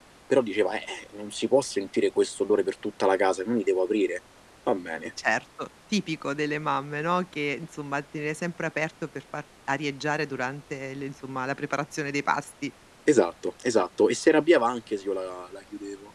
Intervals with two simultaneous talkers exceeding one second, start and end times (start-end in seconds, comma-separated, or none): none